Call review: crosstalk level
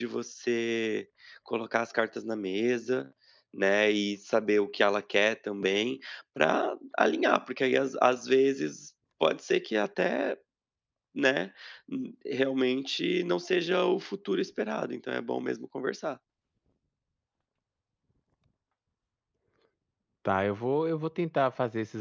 none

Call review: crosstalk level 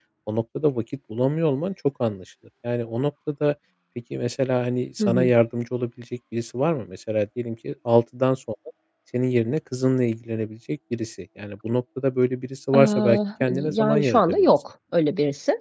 present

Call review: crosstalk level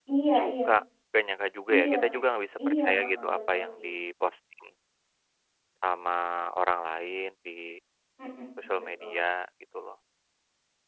present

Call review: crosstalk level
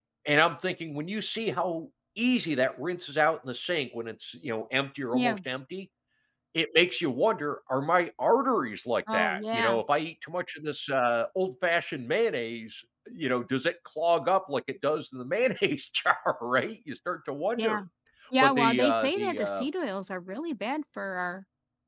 present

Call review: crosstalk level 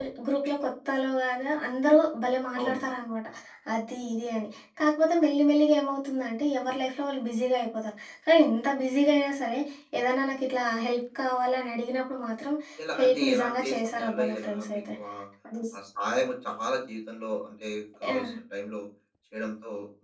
present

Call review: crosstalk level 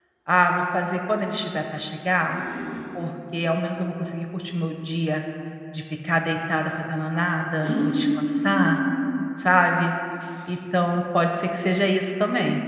present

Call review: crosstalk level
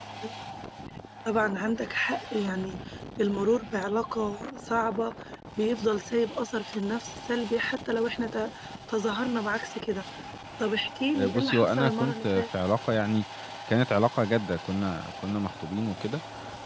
present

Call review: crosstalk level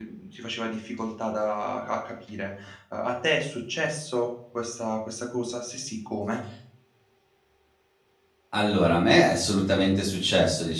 none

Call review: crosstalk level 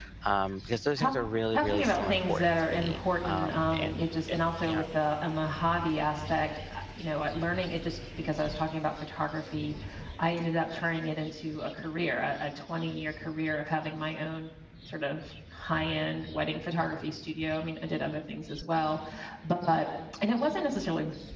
present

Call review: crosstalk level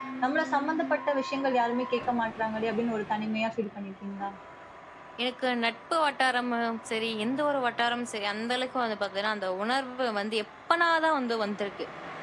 none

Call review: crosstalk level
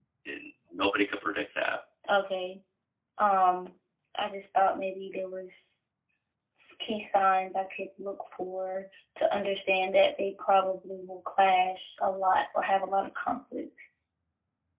none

